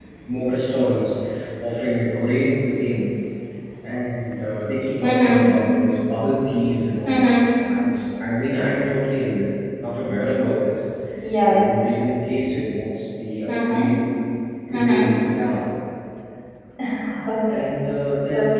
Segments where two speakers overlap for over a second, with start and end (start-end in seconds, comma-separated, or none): none